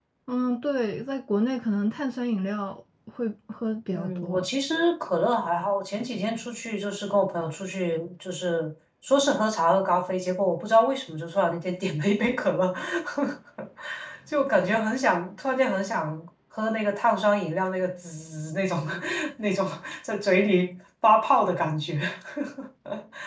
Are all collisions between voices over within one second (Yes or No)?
Yes